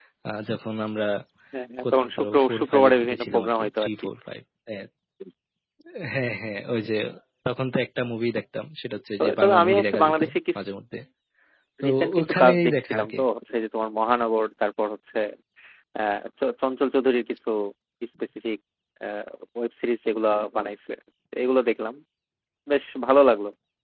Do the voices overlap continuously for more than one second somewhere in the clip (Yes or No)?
Yes